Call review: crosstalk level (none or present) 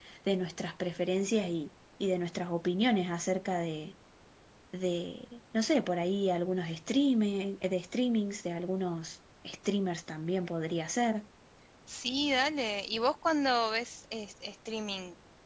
none